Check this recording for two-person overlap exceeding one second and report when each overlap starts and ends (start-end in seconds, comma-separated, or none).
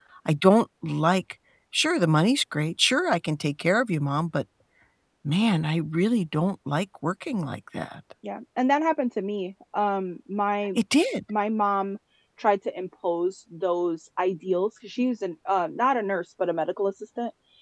none